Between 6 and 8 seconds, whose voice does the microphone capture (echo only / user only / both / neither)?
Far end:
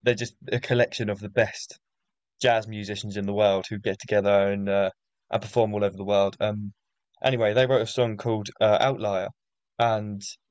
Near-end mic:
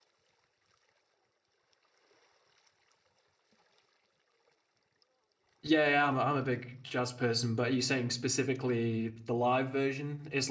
user only